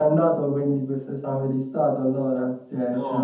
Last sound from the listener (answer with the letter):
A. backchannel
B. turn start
B